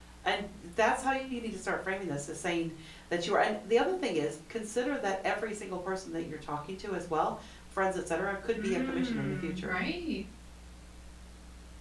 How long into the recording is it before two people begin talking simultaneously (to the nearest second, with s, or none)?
9 s